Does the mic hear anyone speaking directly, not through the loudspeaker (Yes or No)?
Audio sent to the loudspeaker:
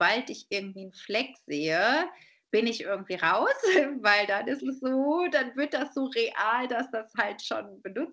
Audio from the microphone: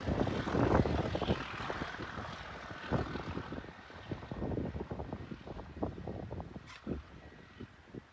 No